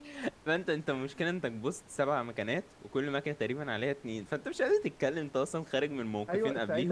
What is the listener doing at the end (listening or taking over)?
taking over